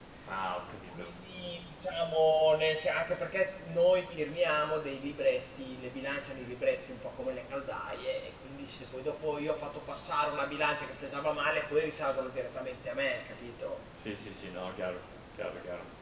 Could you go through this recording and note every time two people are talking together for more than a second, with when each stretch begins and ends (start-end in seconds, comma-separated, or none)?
none